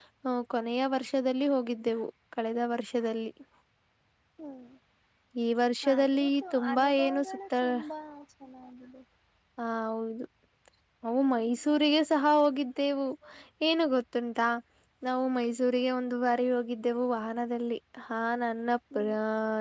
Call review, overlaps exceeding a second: present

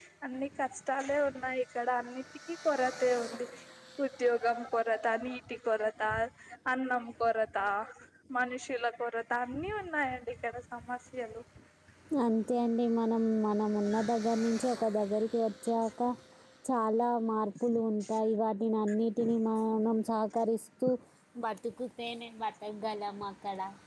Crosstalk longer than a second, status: none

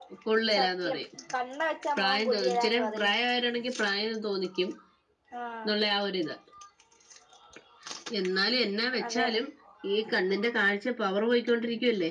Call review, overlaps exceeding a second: present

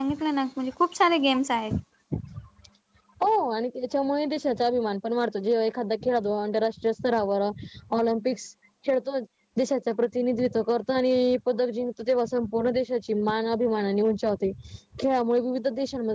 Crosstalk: none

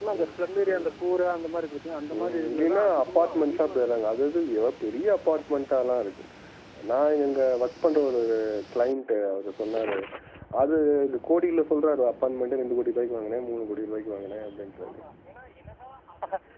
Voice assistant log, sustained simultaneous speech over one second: present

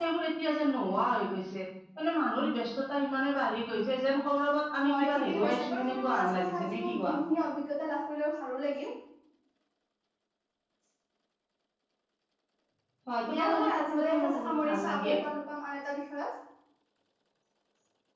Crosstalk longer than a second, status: present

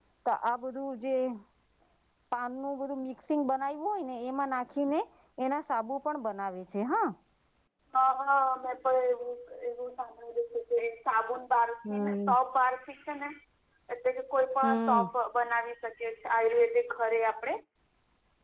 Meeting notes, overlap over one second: none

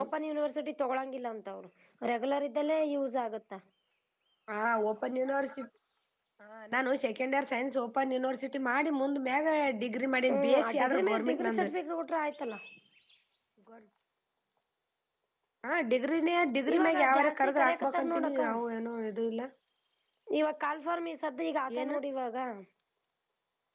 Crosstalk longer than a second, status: present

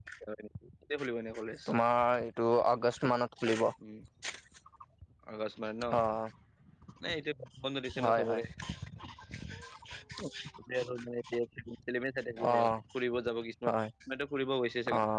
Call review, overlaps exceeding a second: none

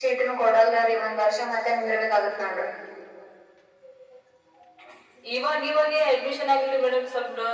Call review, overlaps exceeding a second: none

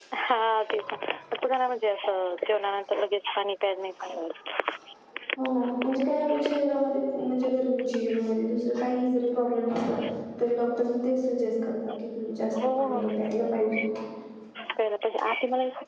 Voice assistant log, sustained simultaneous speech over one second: none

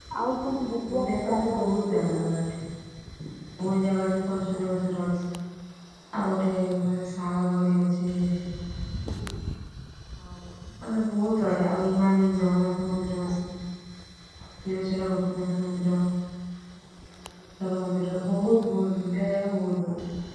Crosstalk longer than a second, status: present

